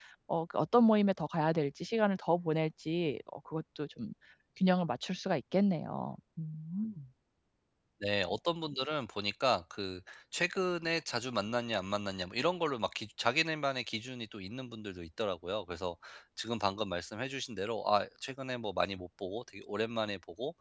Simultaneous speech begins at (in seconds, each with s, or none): none